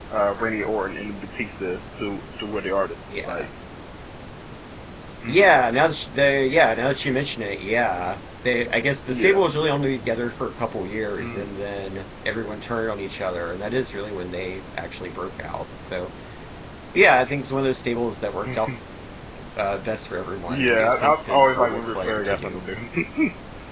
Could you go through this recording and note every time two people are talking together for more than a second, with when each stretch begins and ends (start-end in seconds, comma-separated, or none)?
20.5-22.6